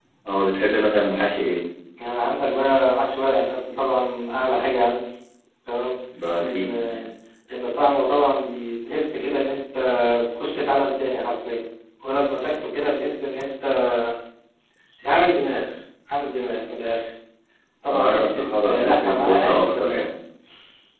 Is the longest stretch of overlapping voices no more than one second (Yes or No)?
No